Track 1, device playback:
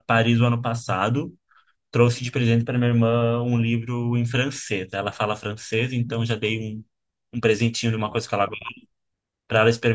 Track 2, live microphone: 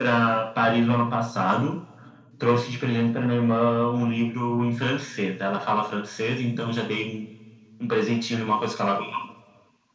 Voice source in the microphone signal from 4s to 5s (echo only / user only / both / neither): echo only